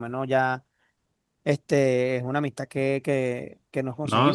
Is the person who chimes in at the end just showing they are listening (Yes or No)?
Yes